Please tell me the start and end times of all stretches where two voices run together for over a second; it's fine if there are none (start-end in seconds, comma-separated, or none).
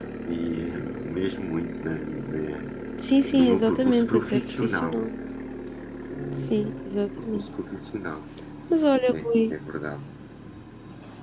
3.3-5.0